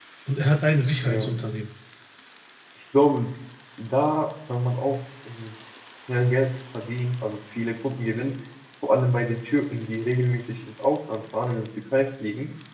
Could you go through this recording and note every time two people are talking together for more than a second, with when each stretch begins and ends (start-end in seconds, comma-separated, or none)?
none